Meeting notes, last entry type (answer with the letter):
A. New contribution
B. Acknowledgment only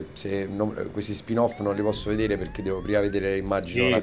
A